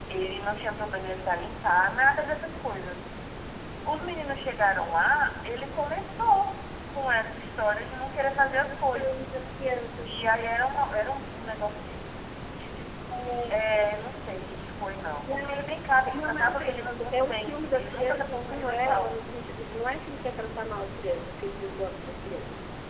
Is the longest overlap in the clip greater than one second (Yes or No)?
Yes